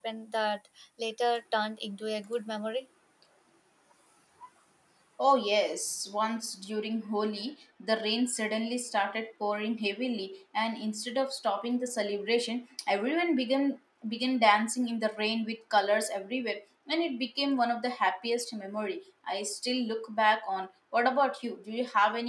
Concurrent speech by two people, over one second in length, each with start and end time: none

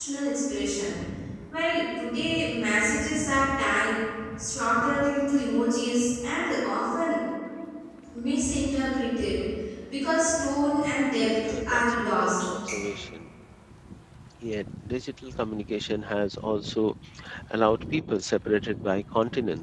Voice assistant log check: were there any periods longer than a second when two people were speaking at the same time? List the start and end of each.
11.2-12.5

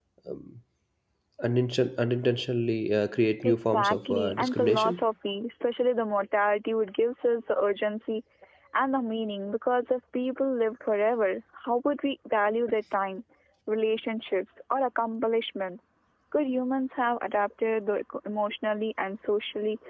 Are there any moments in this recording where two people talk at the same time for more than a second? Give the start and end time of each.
3.4-5.0

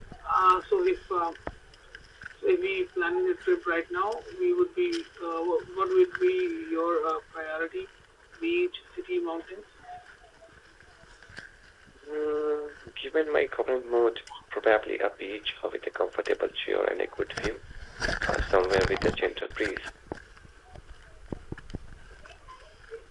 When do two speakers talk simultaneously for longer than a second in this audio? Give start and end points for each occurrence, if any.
none

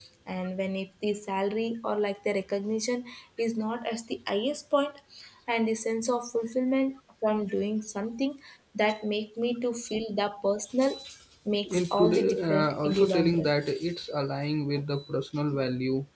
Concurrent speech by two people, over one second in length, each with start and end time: 11.7-13.5

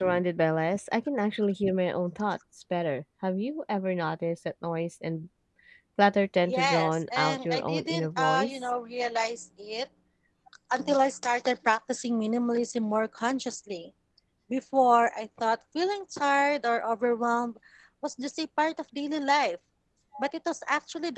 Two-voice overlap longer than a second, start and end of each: 6.5-8.5

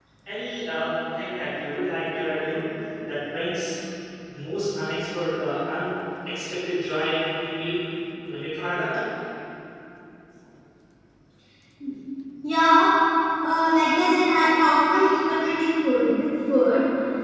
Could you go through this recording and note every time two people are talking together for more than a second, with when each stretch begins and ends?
none

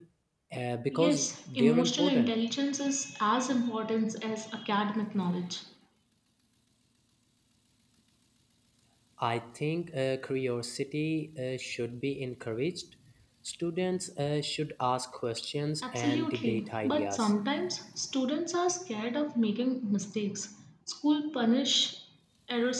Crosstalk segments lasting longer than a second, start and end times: 0.9-2.3, 15.8-17.3

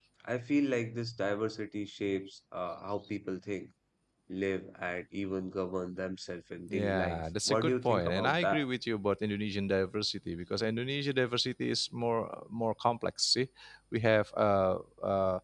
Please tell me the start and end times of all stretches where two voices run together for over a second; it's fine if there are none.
6.7-8.6

